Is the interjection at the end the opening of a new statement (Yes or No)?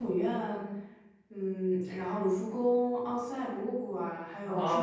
Yes